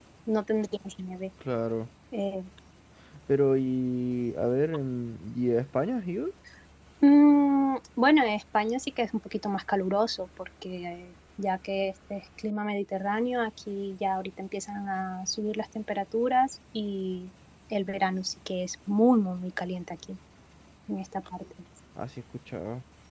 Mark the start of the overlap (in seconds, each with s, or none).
none